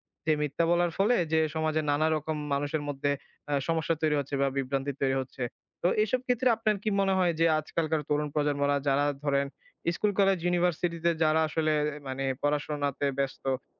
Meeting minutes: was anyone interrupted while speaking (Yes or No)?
No